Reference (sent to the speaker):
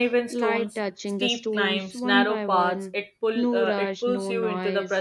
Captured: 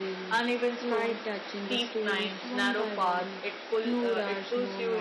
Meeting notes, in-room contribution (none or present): none